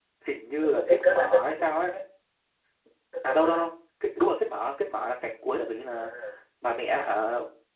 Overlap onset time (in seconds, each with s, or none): 0.6 s